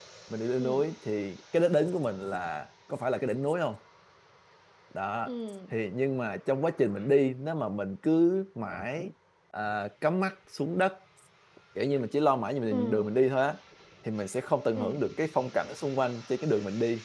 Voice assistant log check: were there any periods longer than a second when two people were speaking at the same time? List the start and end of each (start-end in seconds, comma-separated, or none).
none